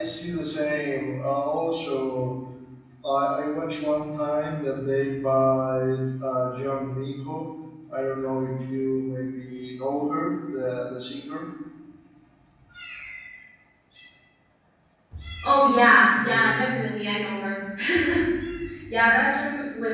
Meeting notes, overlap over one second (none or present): none